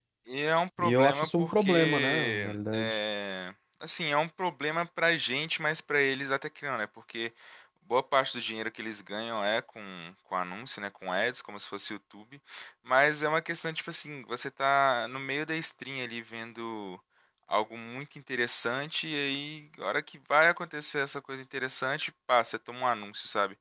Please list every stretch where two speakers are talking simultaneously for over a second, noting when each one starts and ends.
0.8-3.0

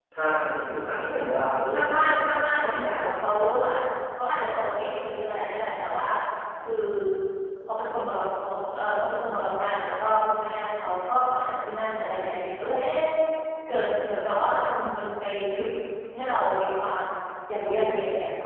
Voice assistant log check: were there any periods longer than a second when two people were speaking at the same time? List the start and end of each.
1.7-3.0

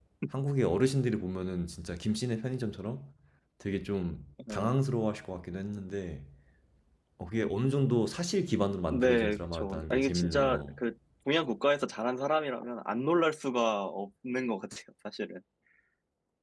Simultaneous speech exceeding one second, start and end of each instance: 8.9-10.8

